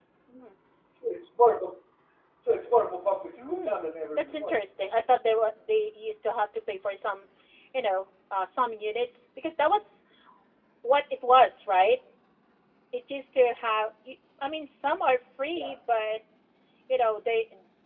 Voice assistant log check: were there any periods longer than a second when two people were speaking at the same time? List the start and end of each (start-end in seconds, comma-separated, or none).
3.4-4.6